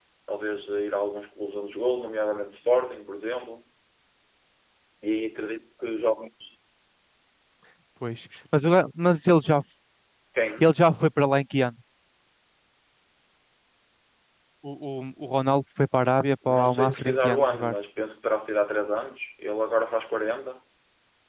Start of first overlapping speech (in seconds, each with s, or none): 16.4 s